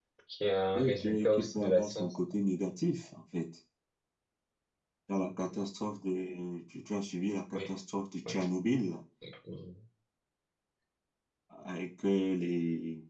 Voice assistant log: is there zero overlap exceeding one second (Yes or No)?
No